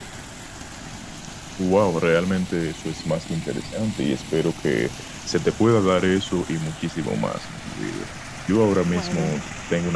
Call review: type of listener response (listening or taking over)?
listening